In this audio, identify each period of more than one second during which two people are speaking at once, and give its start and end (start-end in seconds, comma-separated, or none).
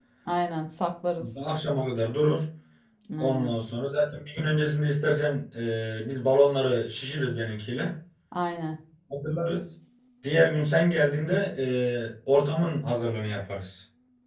none